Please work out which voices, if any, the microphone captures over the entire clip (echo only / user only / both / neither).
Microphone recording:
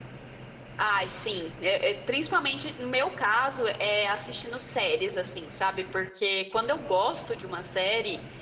user only